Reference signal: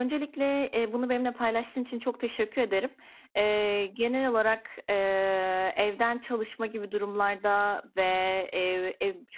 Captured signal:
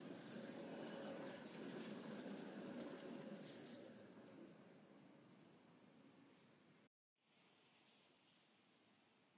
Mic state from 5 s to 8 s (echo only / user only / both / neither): neither